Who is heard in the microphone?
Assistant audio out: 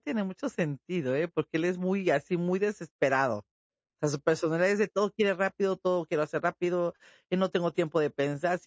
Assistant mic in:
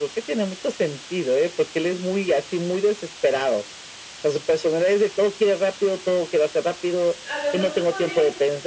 both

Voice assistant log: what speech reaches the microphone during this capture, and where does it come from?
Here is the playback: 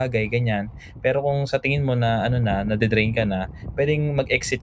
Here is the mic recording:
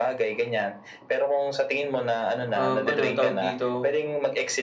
both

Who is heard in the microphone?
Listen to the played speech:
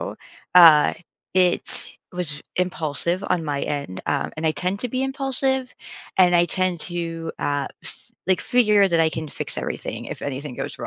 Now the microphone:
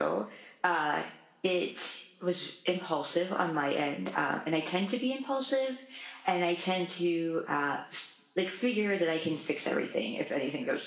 echo only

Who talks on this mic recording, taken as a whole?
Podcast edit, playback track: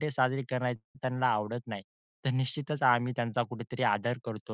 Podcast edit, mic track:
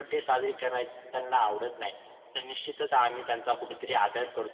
echo only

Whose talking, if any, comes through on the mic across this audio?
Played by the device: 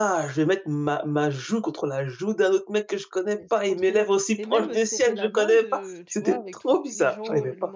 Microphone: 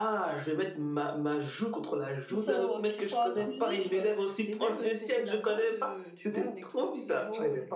both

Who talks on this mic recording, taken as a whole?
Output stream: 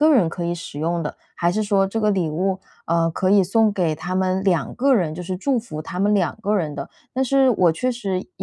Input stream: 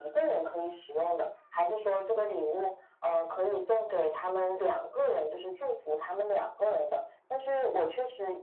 echo only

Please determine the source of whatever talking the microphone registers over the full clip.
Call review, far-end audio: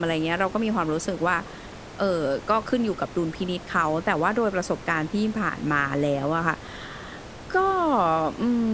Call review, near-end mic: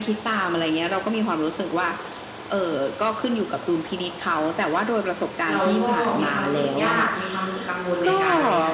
both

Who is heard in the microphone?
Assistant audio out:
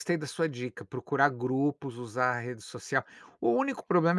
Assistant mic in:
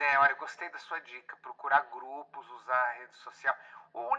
echo only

